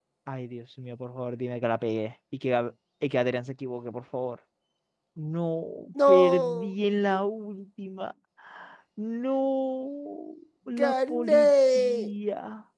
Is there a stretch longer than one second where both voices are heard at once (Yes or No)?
Yes